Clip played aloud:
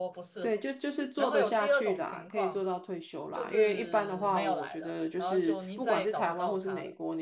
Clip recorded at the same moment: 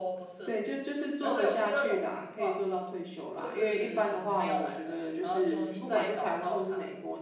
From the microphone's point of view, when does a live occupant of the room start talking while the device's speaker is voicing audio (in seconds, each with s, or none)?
none